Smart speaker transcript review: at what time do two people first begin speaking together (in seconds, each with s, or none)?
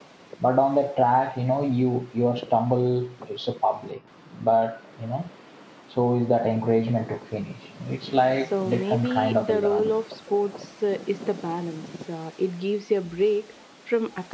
8.4 s